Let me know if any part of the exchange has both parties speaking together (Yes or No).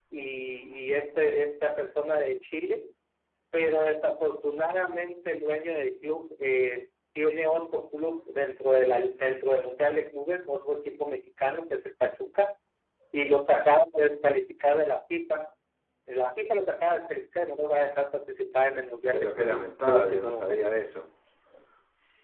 Yes